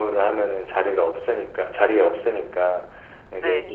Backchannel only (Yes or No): Yes